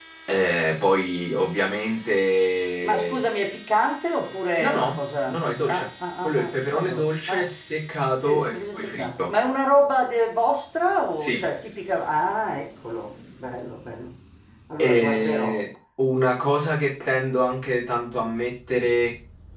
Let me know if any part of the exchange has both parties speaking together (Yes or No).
Yes